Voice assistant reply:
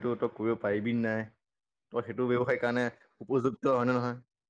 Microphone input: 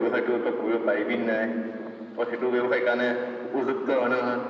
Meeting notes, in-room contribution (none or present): none